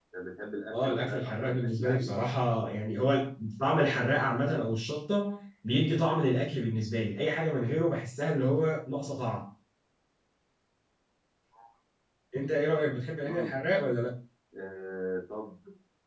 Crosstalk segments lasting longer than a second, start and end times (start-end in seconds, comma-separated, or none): 0.7-2.1